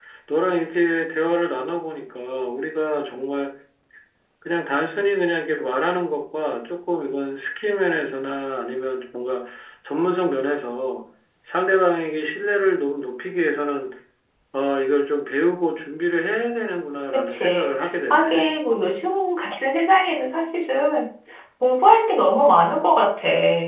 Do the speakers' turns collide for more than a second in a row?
Yes, from 17.1 s

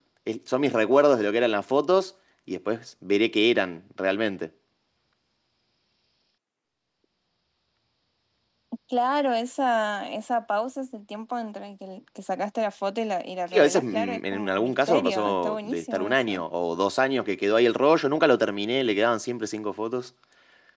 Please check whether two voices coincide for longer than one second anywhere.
Yes, from 13.5 s

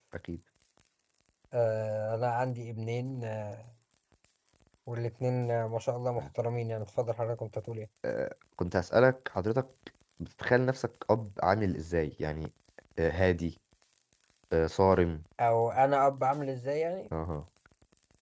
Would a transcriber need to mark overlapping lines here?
No

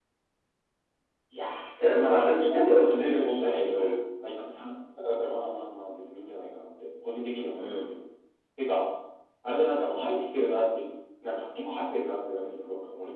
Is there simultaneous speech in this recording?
Yes, from 1.8 s

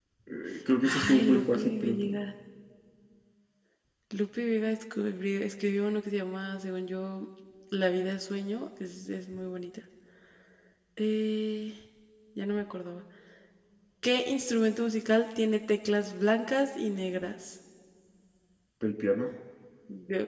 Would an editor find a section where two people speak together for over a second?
Yes, from 0.8 s

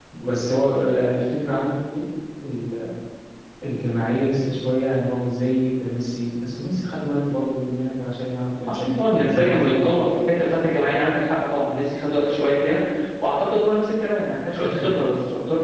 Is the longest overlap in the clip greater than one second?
Yes, from 8.7 s

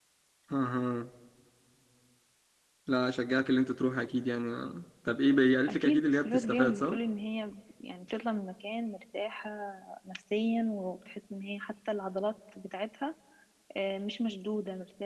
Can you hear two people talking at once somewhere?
Yes, from 5.7 s

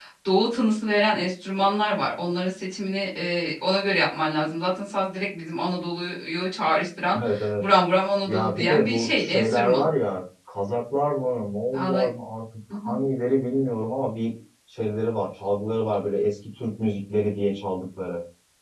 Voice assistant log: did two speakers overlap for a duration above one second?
Yes, from 8.3 s

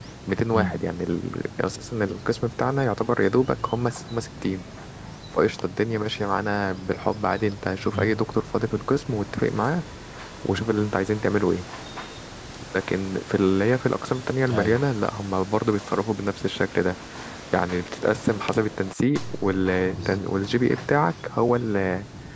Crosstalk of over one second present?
No

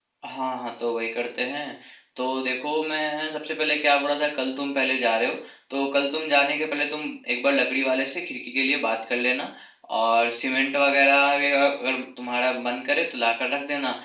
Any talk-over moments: No

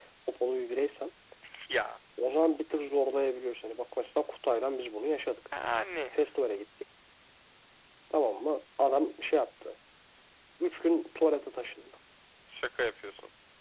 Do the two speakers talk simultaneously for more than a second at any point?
No

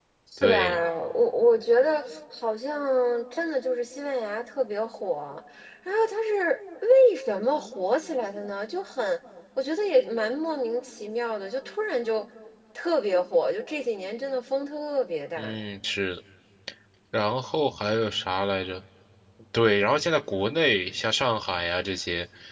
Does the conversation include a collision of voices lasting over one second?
No

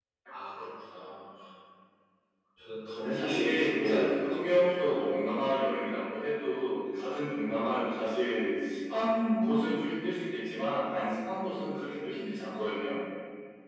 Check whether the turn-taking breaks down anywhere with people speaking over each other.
Yes, from 3.0 s

